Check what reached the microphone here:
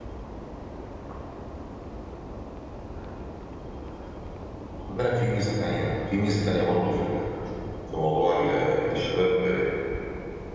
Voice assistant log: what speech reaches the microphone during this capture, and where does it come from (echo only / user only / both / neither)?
user only